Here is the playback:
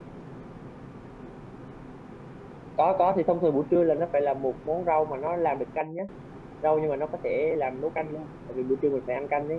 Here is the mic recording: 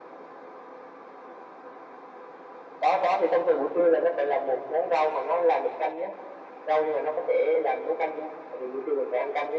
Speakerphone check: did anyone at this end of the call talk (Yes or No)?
No